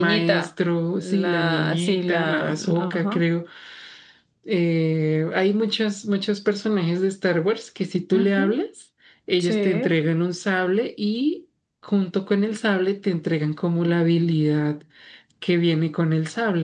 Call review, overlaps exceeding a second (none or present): present